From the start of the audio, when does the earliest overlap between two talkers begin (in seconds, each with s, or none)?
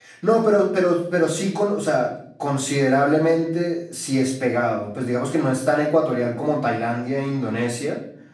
none